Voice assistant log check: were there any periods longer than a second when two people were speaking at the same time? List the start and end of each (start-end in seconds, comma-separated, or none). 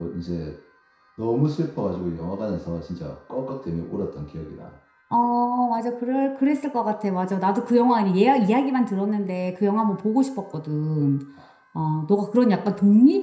none